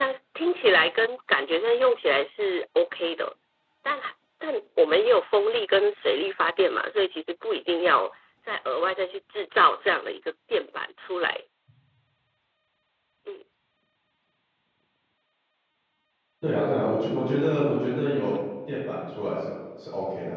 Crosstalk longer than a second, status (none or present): none